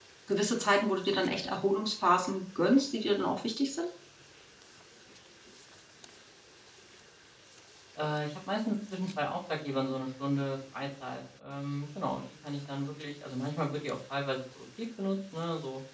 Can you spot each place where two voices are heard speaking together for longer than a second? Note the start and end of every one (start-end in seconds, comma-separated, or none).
none